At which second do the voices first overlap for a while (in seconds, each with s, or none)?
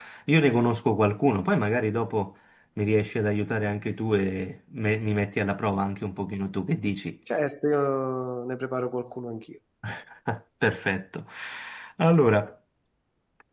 none